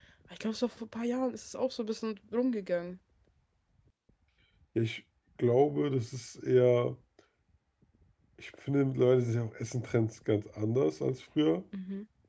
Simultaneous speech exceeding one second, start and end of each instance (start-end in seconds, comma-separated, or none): none